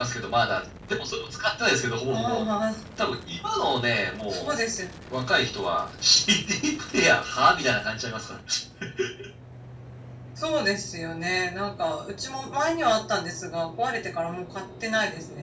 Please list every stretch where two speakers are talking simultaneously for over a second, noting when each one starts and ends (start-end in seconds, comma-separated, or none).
none